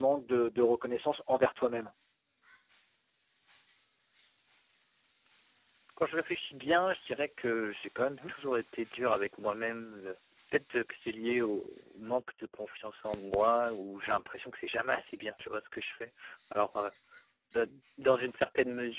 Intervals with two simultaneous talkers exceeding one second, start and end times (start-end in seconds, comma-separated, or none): none